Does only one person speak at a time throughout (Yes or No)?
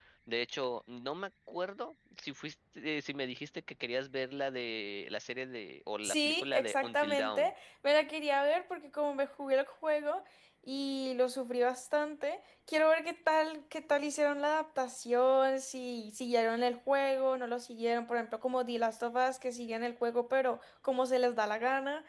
No